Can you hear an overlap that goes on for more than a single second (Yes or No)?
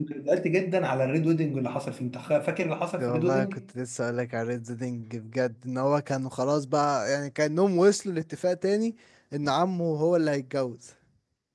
No